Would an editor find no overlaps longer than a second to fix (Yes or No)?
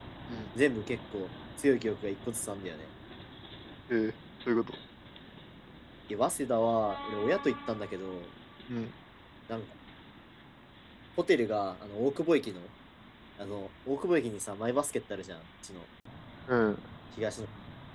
Yes